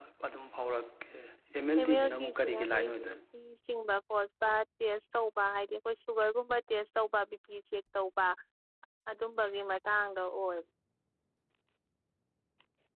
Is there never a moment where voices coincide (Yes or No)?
No